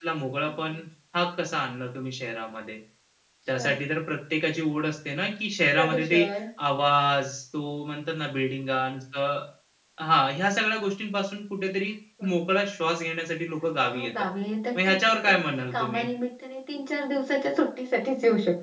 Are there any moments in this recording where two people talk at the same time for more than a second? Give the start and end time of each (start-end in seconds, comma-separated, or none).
14.8-16.1